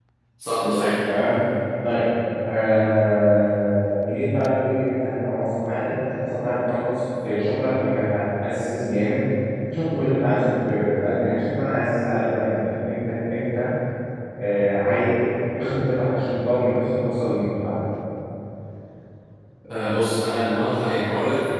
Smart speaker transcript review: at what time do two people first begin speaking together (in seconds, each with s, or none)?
none